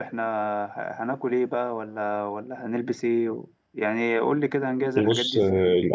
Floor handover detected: Yes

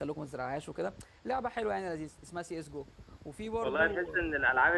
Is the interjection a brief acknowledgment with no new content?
No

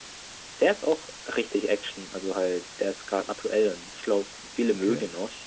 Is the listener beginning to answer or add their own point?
No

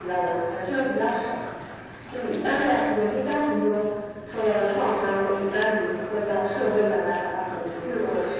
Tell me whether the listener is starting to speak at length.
Yes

